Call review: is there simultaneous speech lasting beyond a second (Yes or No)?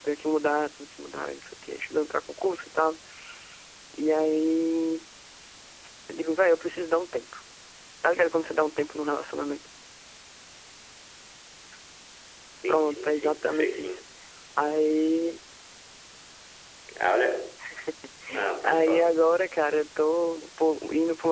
Yes